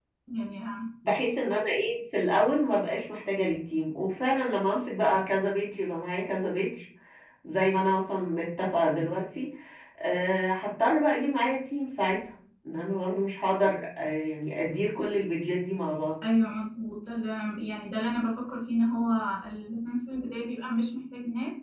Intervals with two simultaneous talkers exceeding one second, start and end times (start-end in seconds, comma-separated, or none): none